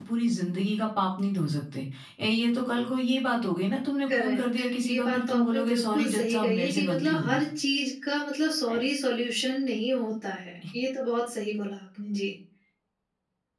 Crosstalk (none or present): present